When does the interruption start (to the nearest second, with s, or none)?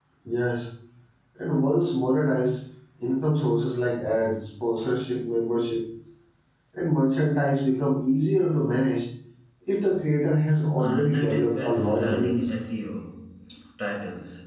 11 s